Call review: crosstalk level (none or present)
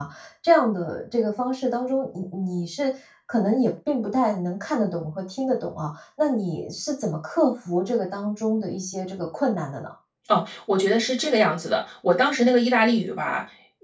none